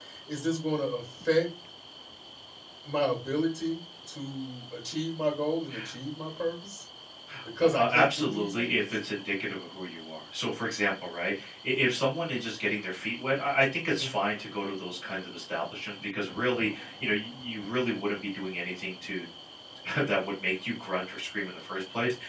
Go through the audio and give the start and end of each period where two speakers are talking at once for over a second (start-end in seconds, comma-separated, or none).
7.6-8.8